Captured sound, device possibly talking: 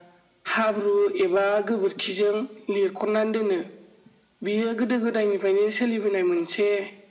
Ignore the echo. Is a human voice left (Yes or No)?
No